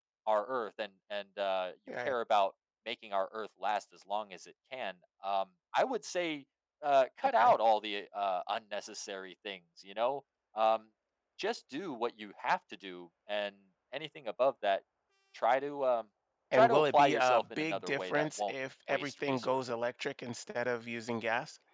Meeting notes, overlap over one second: present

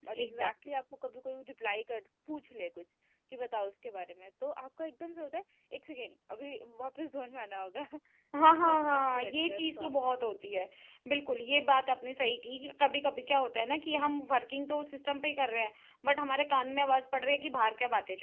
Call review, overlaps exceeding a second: present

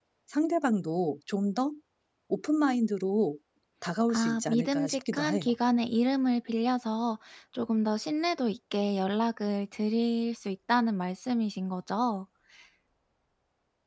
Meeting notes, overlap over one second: present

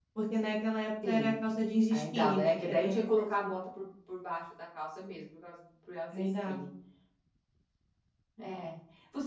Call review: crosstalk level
present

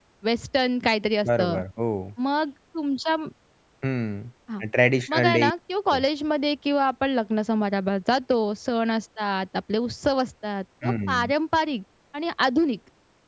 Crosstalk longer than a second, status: none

